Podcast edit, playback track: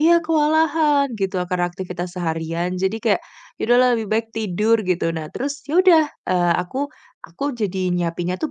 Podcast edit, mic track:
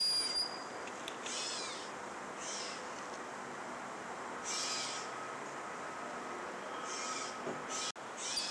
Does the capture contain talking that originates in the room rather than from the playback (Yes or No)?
No